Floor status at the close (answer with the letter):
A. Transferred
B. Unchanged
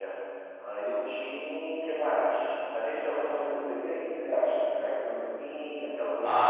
A